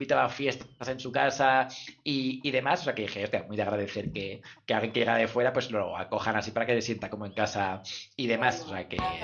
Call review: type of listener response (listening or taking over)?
taking over